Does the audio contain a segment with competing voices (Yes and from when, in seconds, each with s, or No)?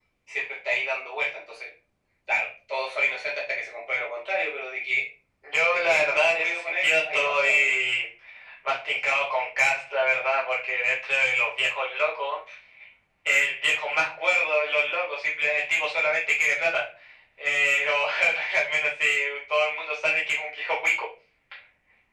Yes, from 5.7 s